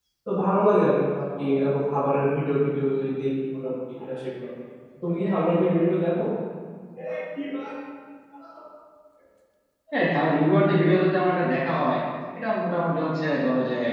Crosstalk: none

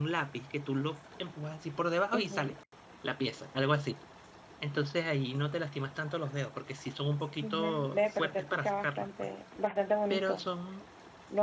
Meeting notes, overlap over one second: present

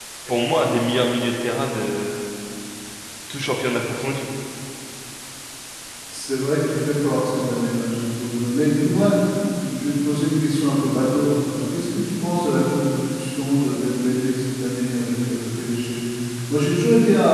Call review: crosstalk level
none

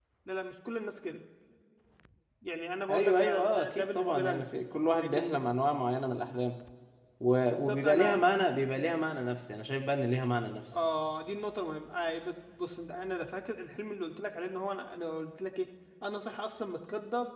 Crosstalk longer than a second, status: present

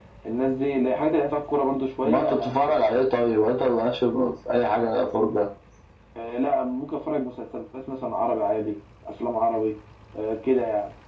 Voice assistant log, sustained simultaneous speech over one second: none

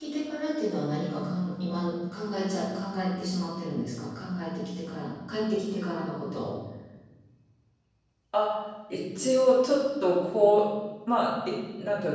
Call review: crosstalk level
none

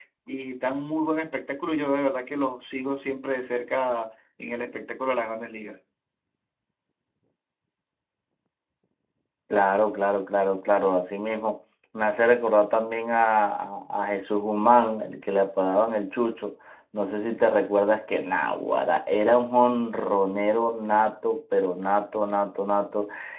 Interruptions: none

